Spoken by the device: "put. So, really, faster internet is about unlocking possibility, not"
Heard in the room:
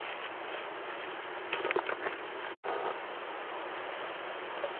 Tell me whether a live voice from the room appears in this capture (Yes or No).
No